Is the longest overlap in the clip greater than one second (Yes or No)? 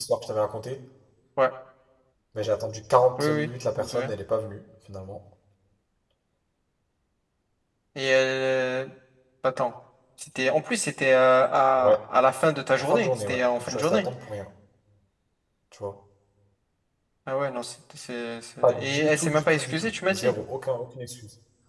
Yes